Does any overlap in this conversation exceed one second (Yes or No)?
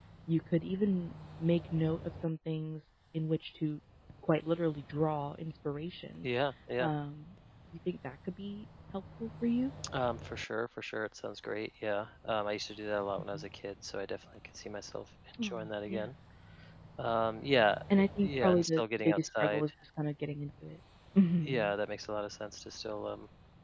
Yes